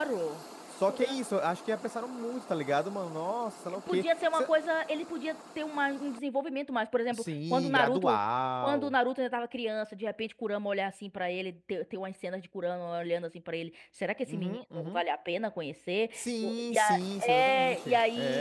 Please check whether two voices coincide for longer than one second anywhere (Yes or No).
Yes